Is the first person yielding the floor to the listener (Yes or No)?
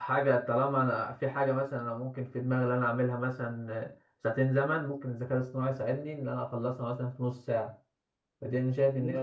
No